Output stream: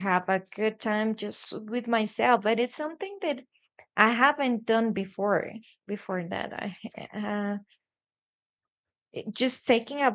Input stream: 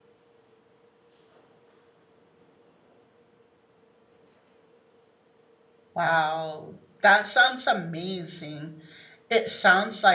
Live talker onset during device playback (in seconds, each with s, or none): 5.9 s